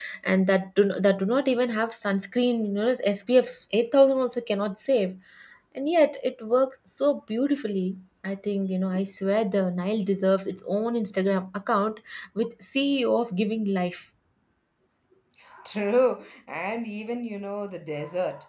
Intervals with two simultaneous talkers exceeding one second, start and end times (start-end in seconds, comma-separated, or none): none